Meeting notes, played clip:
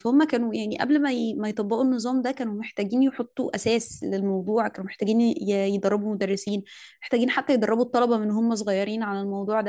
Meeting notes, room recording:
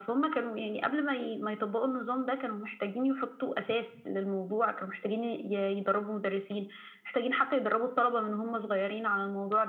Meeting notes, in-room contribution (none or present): none